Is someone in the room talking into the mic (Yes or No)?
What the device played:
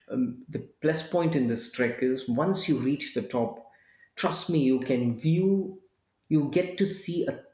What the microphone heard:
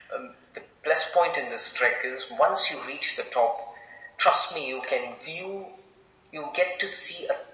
No